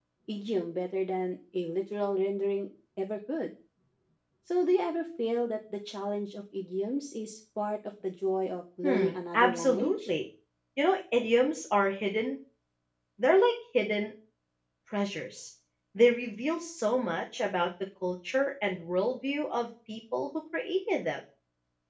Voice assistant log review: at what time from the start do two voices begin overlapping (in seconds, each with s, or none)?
8.8 s